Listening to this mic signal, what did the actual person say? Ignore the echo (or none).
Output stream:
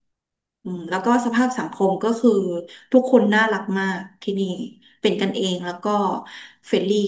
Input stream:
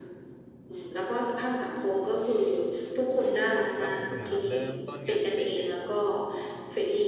แล้วของคุณนะครับเริ่มต้นงานนี้ได้ยังไงครับ